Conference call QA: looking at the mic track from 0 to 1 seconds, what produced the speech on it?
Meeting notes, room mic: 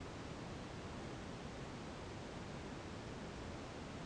neither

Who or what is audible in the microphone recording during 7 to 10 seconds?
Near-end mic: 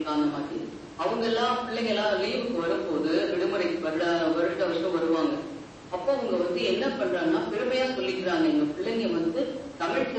echo only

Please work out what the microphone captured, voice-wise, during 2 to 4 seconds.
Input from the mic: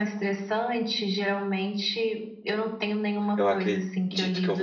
both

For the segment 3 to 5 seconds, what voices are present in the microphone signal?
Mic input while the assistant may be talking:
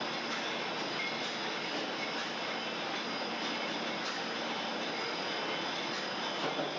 neither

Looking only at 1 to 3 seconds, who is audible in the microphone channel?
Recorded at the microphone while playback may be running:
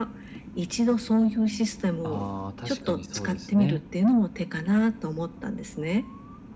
both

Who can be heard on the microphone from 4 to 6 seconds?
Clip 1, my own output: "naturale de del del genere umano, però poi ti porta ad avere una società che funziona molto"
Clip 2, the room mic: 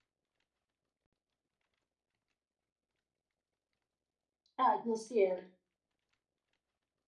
user only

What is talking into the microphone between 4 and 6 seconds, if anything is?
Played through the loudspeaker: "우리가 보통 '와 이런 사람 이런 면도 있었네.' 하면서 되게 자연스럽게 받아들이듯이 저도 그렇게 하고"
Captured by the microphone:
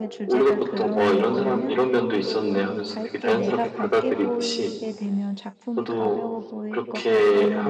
both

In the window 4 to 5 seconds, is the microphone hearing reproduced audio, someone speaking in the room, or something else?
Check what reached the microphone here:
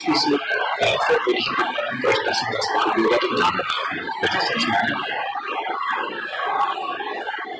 echo only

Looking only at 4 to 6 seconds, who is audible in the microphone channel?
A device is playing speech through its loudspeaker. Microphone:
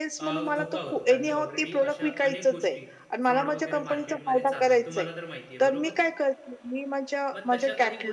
both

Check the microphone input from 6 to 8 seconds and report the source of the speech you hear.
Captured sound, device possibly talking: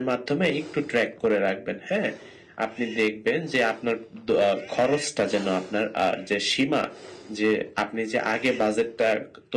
echo only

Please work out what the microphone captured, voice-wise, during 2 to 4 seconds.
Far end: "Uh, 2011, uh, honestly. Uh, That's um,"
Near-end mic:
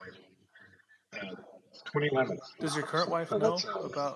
both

